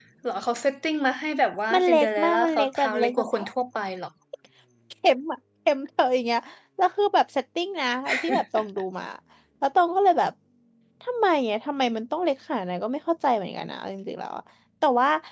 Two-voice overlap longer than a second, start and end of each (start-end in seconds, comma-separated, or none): 1.7-3.3